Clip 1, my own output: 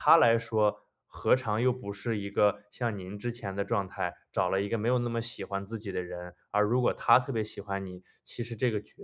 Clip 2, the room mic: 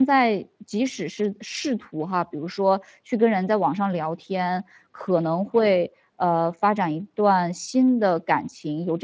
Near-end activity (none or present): present